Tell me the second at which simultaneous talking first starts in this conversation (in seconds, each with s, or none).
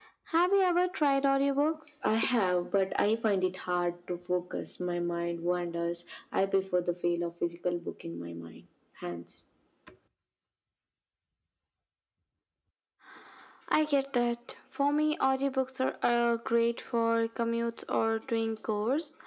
none